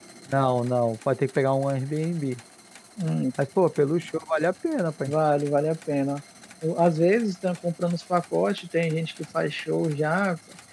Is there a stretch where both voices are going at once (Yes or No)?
No